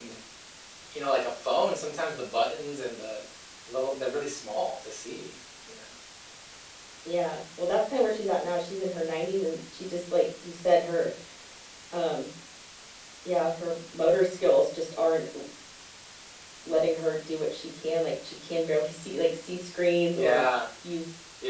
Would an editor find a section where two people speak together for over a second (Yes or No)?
No